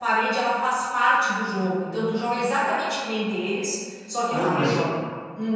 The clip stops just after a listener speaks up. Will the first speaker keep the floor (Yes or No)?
No